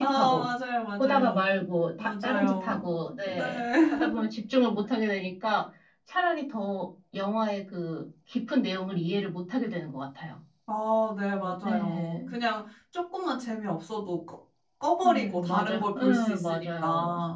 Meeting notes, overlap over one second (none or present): present